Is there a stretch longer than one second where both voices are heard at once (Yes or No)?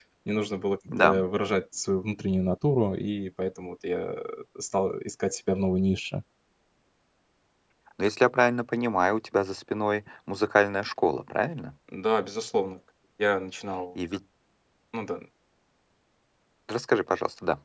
No